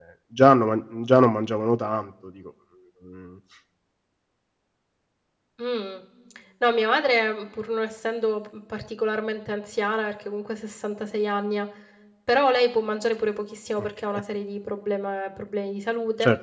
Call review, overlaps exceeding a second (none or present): none